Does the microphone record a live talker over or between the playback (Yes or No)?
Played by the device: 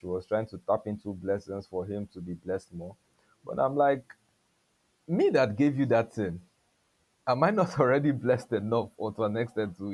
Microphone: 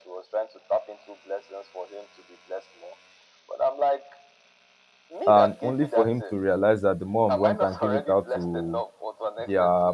Yes